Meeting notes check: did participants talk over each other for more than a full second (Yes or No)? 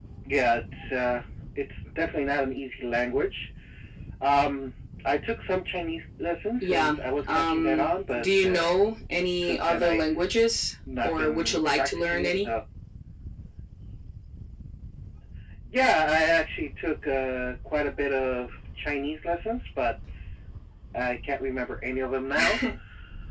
Yes